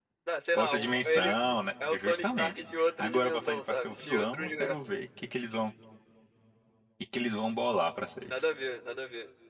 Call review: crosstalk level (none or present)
present